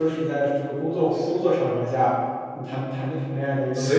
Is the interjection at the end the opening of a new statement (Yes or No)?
Yes